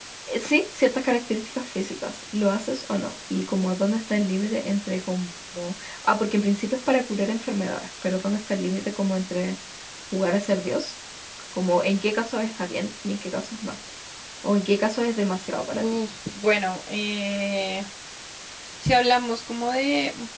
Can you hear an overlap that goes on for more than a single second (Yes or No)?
No